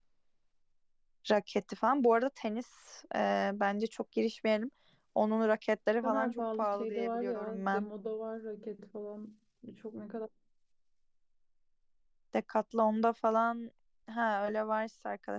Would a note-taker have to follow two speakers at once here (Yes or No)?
Yes